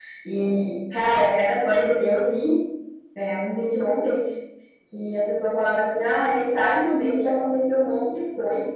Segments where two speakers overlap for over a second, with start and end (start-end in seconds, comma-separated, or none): none